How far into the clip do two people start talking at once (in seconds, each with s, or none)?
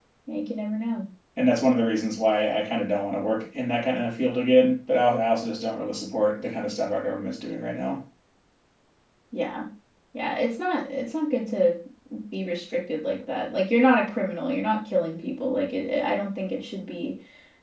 none